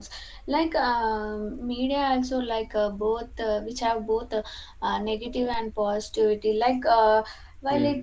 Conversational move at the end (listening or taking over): listening